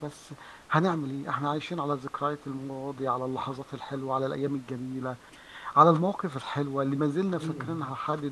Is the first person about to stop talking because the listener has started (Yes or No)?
No